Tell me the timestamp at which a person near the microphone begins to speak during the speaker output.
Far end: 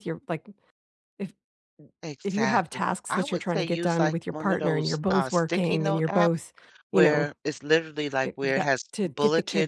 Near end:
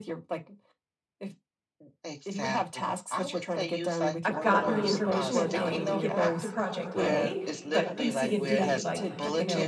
4.2 s

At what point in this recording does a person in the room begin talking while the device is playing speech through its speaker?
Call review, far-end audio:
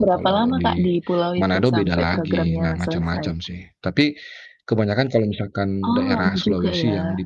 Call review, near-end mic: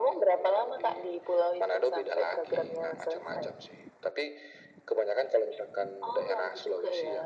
none

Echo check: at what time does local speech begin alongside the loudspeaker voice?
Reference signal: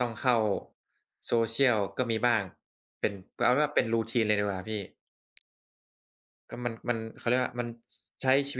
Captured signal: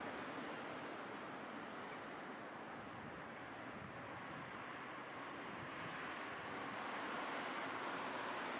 none

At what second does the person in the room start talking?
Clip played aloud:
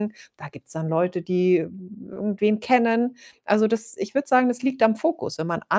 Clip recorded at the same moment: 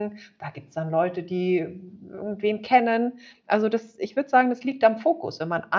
none

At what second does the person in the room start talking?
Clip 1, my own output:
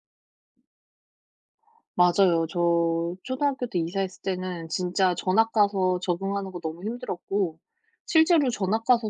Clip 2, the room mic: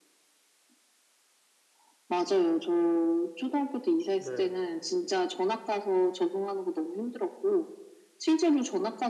4.2 s

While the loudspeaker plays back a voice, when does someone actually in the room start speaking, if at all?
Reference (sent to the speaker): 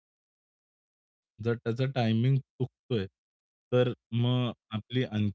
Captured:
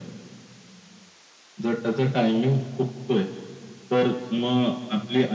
none

